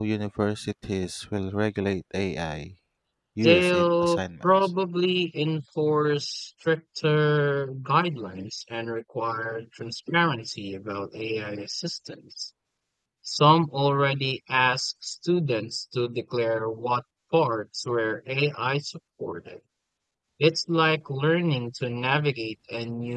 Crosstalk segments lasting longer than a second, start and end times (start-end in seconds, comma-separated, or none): 3.4-4.7